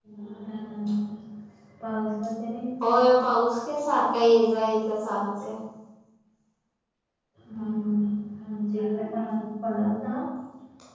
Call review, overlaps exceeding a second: none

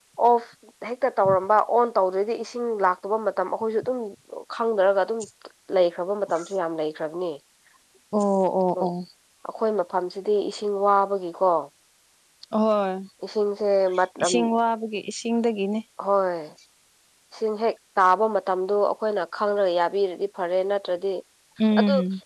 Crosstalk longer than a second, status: none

